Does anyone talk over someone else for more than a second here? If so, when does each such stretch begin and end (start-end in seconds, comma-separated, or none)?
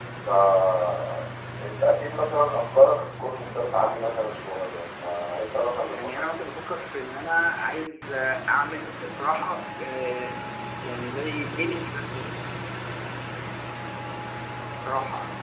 none